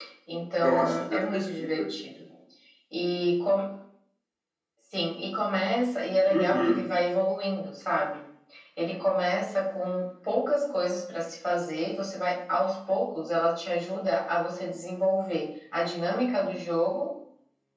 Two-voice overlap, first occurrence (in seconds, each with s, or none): 0.6 s